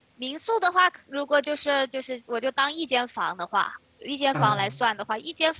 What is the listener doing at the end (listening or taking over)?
listening